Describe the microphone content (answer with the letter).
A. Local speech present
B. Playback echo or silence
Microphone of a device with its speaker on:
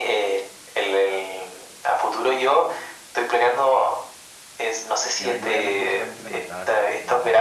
A